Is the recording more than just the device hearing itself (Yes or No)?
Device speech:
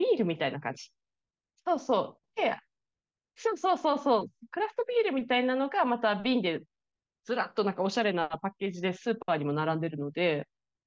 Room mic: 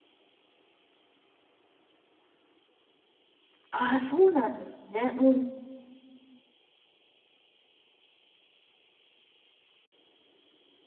Yes